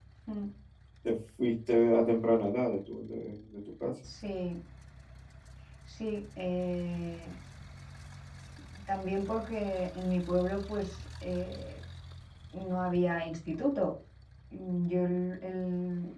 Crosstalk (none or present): none